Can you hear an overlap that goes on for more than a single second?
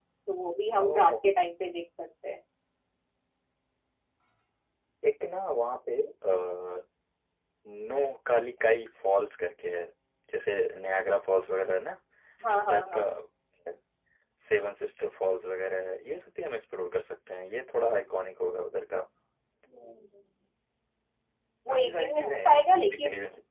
Yes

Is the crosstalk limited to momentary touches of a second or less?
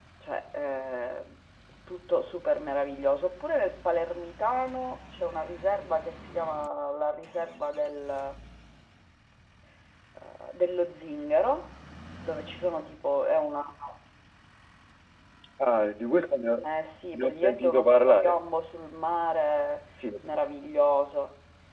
No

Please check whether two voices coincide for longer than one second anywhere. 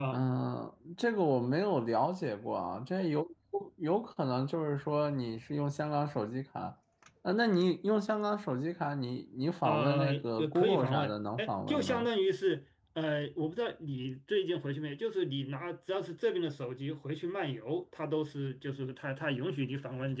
Yes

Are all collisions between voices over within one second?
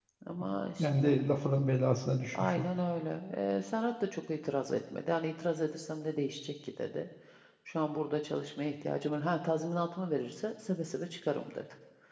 Yes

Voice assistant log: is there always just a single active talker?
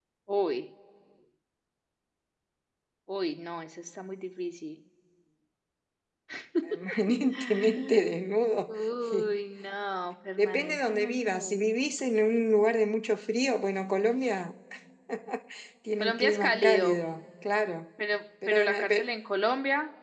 No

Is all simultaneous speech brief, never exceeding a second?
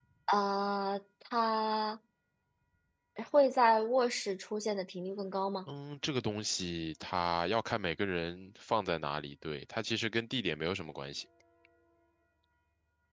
Yes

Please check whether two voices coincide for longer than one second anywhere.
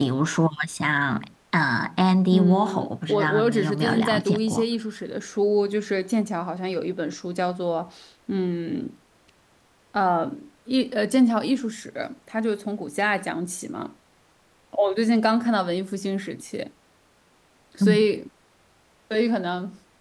Yes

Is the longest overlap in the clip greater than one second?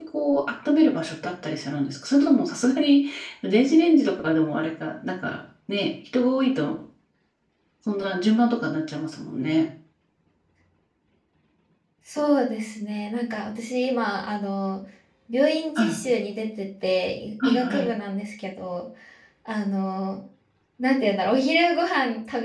No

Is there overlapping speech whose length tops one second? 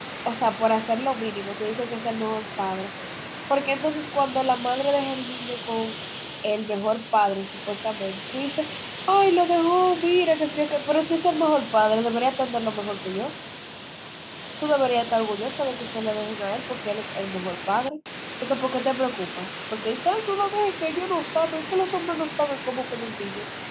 No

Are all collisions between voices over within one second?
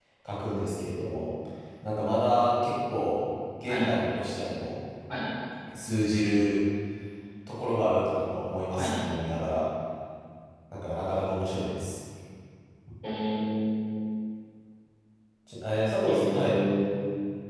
Yes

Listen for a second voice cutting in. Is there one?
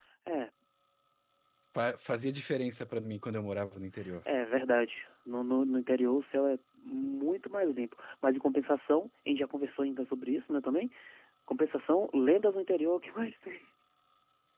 No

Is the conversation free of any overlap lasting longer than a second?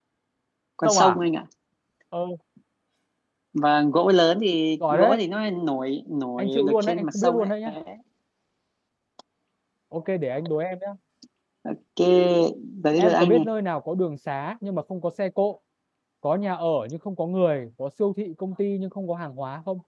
No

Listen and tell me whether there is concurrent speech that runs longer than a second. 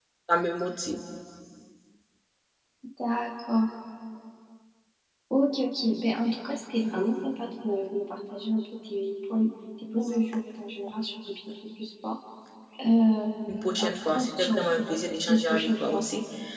Yes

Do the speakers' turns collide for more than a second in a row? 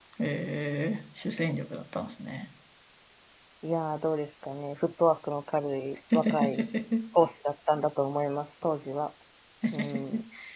No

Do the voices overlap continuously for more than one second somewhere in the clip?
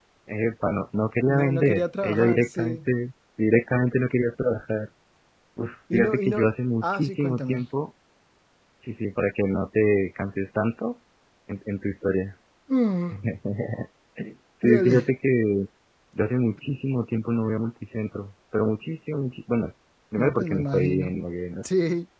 Yes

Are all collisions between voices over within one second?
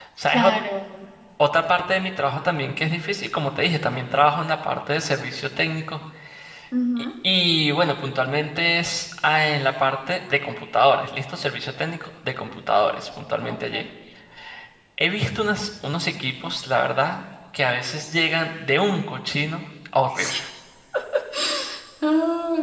Yes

